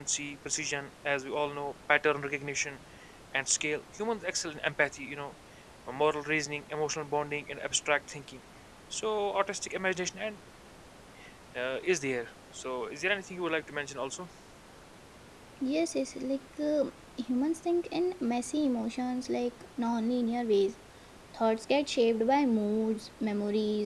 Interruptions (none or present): none